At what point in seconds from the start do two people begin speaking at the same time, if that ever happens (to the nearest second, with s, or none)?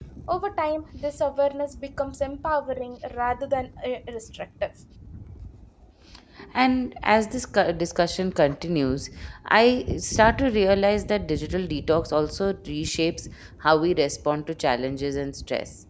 none